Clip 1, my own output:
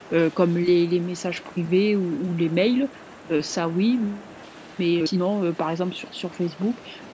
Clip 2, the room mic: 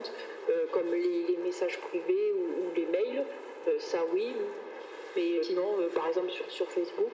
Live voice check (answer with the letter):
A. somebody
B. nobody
B